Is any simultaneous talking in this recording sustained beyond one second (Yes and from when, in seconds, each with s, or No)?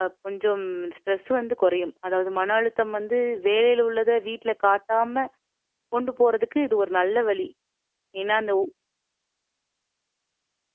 No